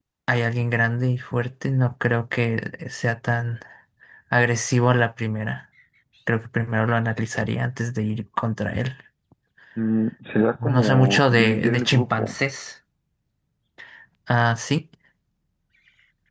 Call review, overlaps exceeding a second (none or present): present